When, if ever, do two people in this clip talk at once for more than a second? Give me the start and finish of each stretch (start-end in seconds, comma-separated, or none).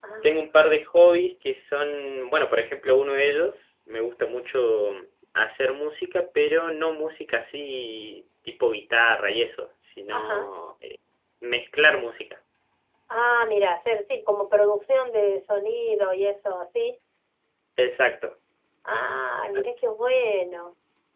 none